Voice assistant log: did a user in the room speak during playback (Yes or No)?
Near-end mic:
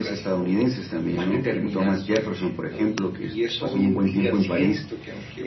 No